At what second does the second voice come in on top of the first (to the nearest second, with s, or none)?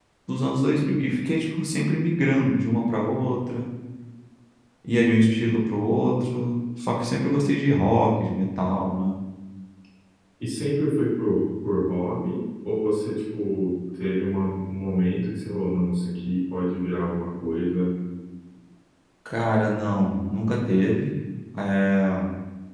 none